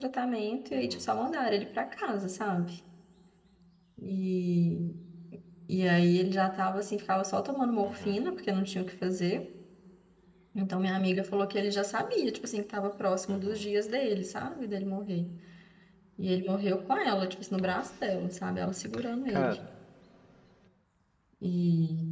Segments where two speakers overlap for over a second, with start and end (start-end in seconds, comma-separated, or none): none